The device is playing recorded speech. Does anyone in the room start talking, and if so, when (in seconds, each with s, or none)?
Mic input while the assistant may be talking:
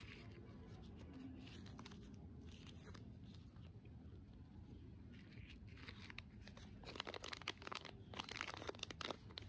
none